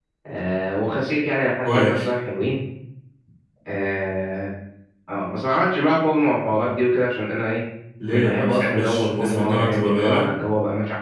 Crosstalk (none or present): present